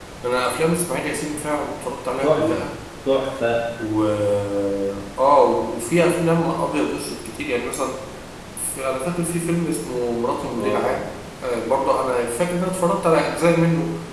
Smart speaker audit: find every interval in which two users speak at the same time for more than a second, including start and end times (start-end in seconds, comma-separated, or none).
none